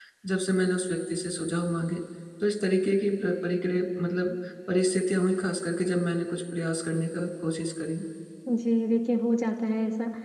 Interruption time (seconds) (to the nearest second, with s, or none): none